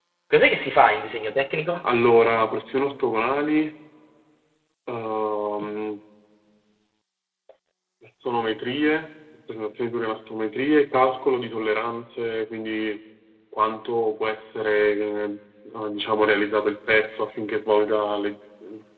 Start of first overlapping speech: none

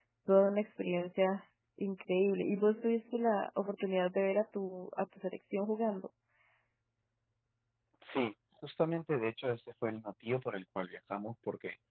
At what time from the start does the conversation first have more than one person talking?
none

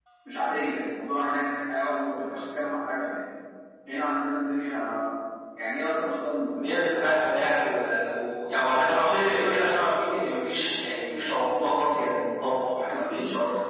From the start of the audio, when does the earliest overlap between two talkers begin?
none

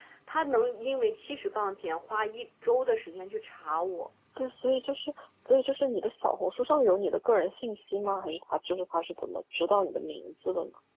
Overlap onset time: none

